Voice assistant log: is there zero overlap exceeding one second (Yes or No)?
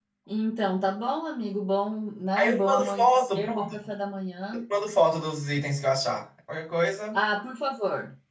No